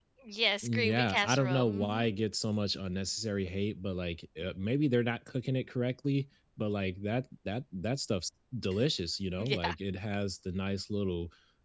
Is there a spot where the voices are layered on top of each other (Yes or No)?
Yes